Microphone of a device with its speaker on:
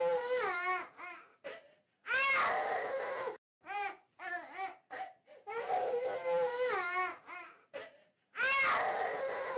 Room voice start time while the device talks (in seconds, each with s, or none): none